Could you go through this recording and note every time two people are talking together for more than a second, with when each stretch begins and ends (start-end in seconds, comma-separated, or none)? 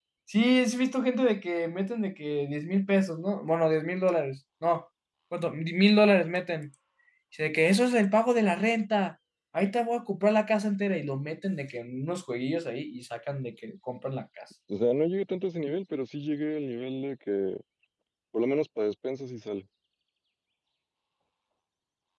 none